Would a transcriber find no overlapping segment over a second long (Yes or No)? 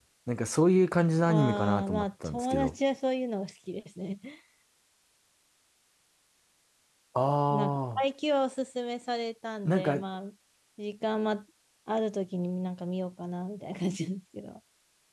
No